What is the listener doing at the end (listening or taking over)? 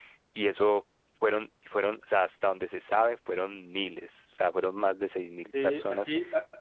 taking over